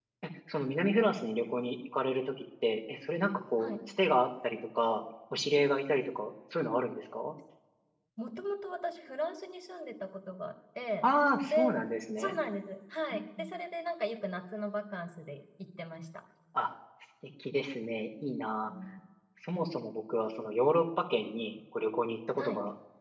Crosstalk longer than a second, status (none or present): none